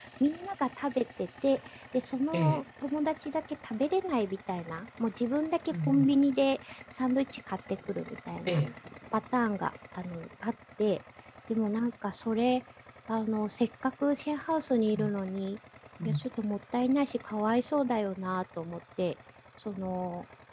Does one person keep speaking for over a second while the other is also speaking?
No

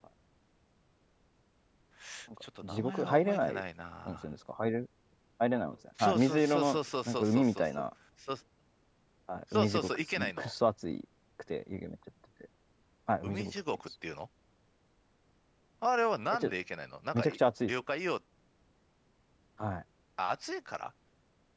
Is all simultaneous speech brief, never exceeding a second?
No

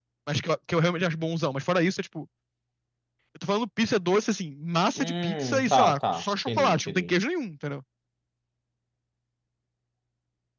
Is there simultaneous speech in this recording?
Yes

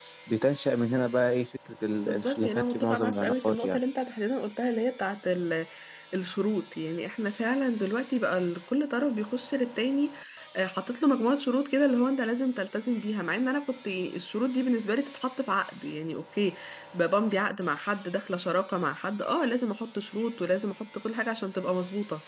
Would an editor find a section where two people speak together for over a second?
Yes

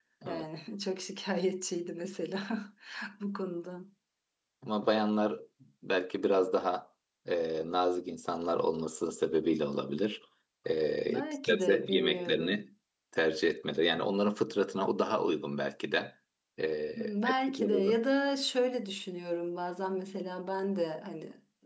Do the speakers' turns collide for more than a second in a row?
Yes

